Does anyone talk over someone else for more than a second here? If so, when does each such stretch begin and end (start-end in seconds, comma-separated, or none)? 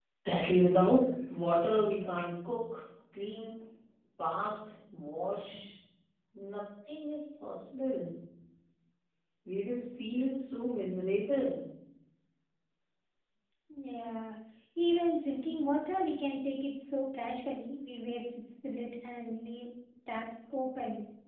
none